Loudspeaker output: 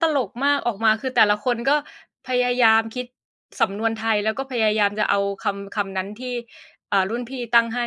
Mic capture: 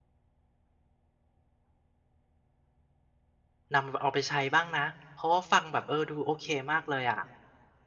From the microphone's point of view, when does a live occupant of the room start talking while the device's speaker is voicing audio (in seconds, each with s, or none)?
3.7 s